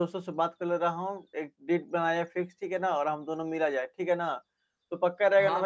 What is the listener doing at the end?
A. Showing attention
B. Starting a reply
B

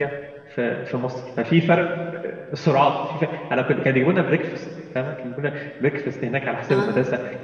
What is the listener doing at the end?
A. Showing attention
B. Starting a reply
A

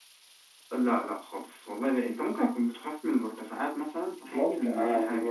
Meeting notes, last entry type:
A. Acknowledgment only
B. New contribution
B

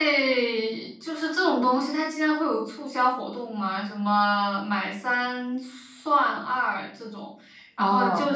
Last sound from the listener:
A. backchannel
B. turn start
A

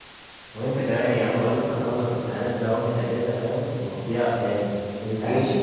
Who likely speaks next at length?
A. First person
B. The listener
B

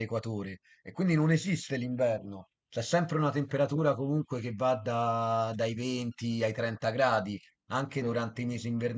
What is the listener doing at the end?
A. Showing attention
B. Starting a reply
A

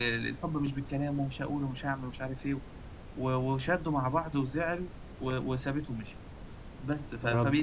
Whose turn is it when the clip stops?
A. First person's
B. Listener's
A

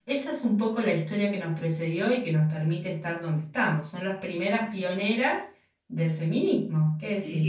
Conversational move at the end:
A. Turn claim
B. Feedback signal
A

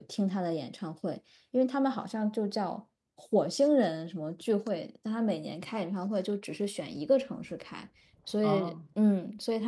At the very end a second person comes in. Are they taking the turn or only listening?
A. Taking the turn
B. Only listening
B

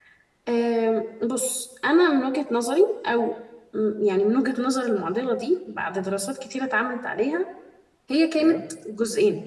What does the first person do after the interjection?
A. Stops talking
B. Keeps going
B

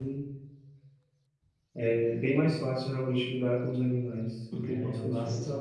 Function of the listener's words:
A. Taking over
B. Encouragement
A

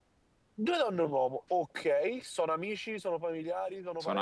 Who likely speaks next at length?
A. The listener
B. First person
A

